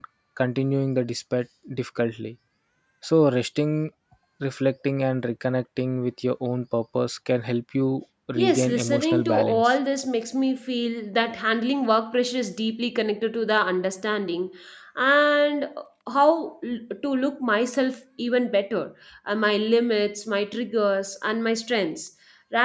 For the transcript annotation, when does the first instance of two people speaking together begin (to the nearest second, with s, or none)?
8 s